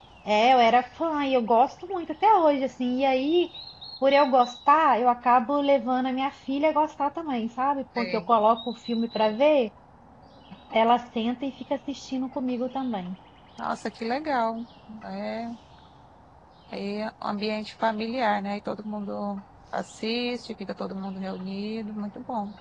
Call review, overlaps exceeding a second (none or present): none